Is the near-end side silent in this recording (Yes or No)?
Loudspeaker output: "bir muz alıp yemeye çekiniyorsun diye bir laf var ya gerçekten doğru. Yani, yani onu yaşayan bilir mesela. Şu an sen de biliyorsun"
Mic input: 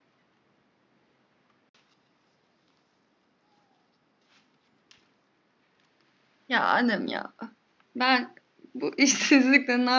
No